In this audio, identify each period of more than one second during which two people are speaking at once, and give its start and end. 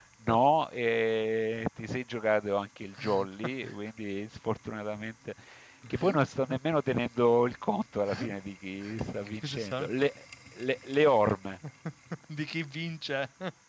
none

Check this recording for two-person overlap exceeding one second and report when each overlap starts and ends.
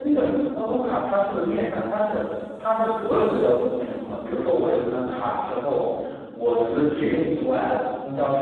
none

